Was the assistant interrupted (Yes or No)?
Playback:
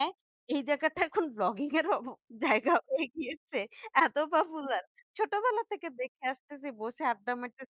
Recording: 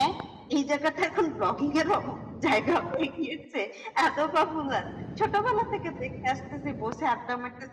No